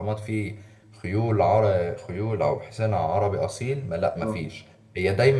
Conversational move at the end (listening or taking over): listening